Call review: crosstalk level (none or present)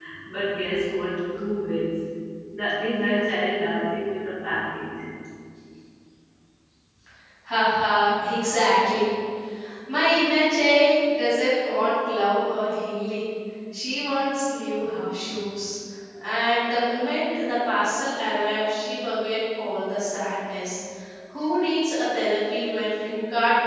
none